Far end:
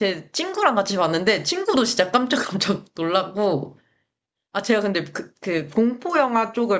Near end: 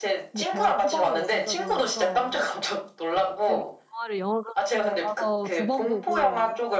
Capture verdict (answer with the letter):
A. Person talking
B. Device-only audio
A